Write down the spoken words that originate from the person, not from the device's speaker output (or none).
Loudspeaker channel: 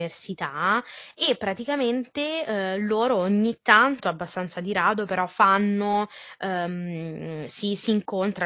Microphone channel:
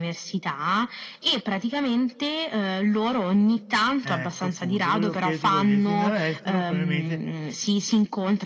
Ecco, appunto, volevo chiederti quello lì. Essendo all'estero probabilmente